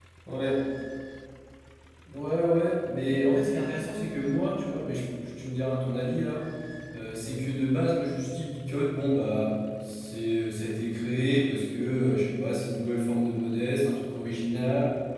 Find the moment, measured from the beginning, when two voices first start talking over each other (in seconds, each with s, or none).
none